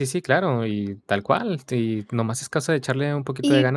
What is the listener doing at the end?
taking over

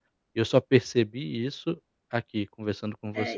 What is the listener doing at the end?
taking over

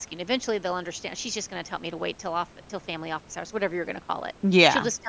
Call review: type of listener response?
listening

